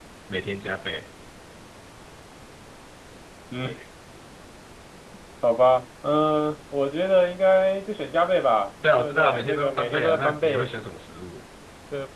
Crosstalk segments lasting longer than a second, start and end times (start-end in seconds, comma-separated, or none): 9.0-10.7